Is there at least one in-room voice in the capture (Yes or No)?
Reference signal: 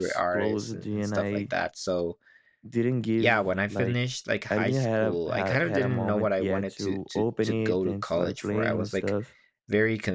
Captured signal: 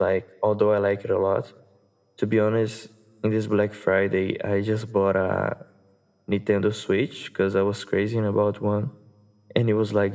Yes